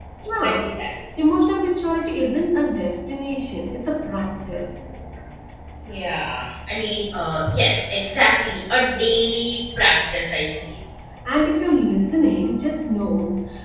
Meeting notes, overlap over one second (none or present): none